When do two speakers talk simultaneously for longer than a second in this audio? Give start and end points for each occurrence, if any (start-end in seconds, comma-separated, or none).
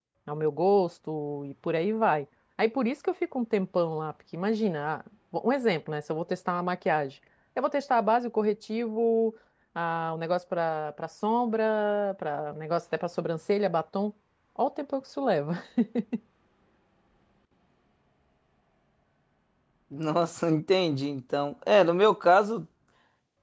none